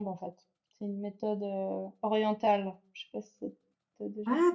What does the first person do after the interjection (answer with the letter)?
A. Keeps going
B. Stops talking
B